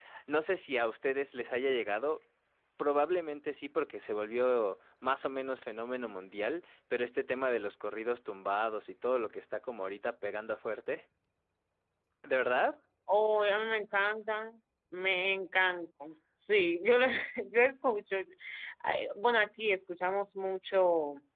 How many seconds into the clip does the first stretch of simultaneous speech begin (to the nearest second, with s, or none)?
none